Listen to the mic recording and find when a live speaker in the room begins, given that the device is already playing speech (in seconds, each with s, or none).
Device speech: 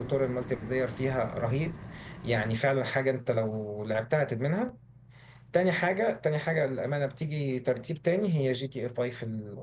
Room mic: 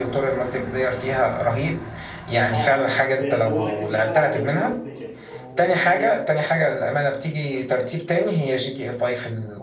2.5 s